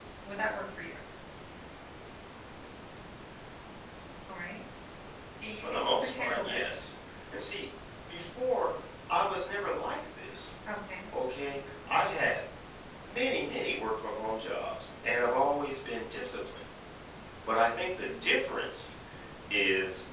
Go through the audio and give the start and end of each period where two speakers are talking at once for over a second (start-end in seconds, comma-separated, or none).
5.6-6.8